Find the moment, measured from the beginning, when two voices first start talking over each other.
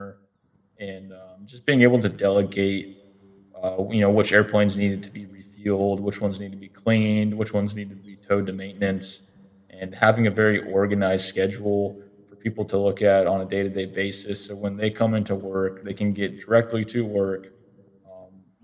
none

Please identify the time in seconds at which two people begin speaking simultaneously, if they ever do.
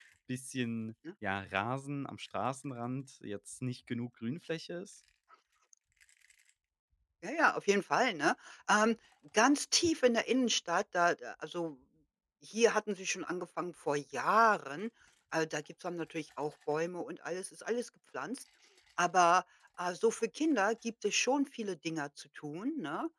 none

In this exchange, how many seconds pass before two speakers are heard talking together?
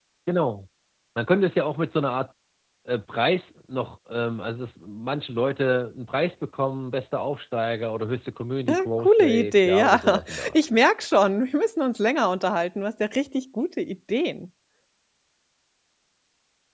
9 s

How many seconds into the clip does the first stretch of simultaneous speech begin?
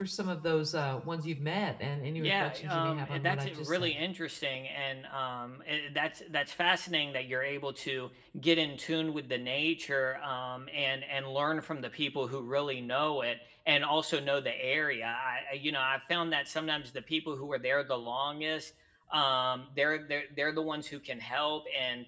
2 s

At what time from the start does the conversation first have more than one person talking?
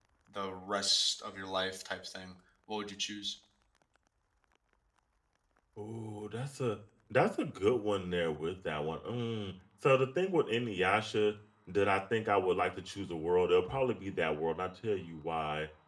none

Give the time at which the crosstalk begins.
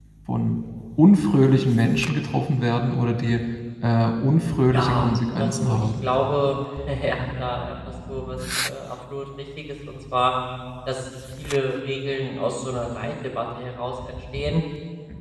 5 s

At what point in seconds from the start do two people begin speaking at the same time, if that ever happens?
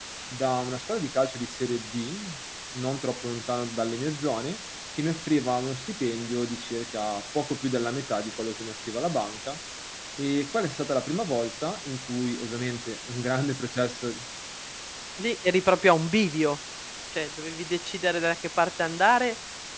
none

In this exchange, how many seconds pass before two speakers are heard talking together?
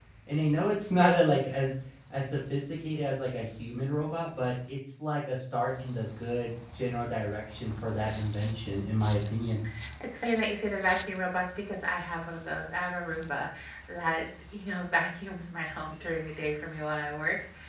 none

